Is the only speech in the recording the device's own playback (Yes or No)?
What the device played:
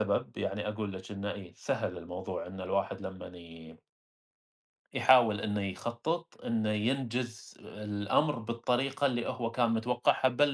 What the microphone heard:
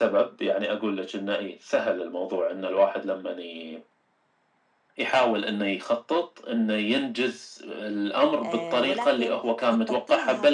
No